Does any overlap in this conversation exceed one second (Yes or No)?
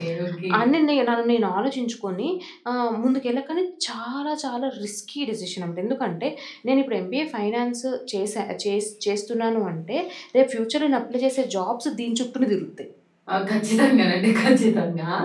No